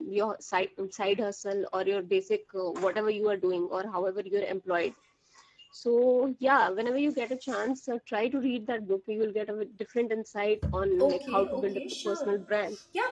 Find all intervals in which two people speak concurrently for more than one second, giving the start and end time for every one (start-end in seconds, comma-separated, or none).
11.0-12.3